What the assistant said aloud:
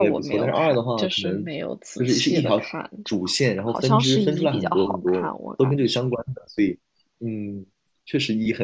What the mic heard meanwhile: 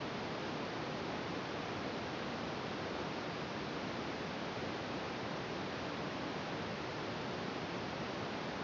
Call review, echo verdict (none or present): none